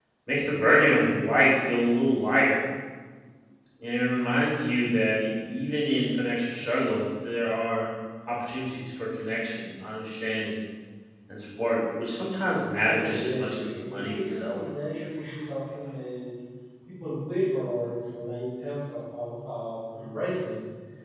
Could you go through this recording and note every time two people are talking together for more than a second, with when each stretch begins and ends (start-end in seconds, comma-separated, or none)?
12.8-14.6